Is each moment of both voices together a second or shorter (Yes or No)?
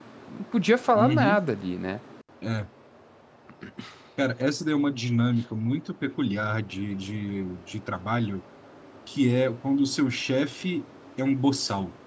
Yes